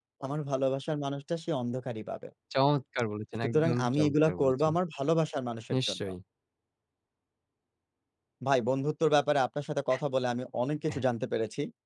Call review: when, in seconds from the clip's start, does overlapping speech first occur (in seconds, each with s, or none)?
3.4 s